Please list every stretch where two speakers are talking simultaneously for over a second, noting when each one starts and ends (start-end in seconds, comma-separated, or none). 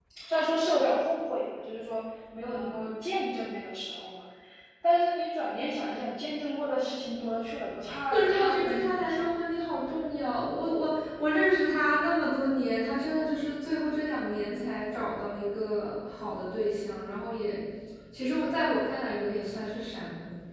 8.1-9.2